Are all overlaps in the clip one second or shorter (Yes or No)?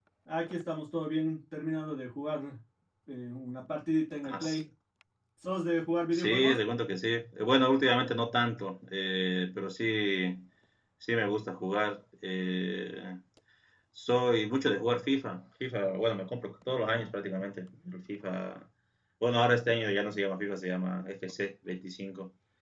Yes